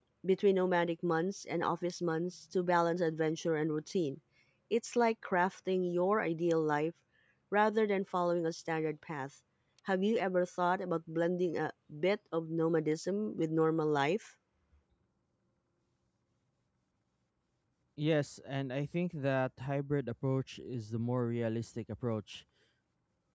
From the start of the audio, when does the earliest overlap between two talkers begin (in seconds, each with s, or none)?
none